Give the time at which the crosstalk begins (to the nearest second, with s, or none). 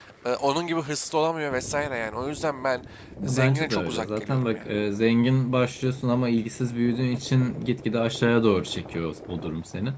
3 s